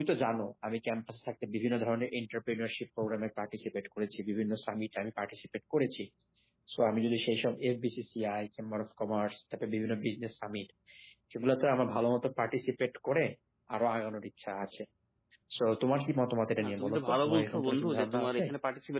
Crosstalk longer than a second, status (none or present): present